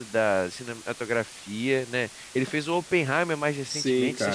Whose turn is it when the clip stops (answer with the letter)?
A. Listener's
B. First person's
A